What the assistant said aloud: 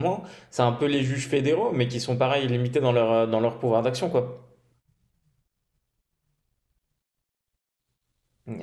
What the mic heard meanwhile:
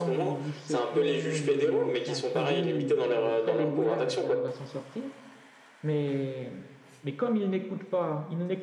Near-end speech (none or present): present